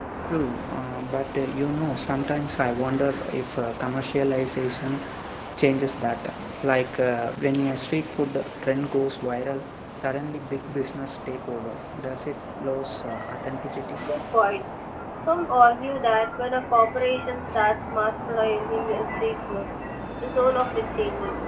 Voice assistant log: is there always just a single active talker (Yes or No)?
Yes